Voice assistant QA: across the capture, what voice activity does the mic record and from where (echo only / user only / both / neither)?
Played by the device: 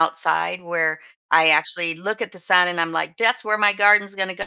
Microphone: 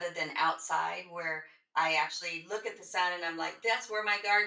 echo only